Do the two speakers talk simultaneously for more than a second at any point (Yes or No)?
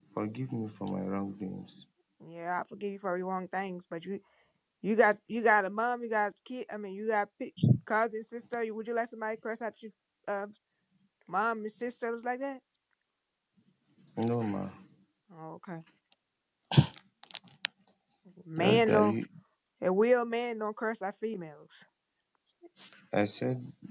No